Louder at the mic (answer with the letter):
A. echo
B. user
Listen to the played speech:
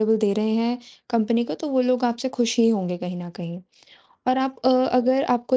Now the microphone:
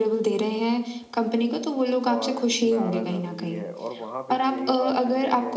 A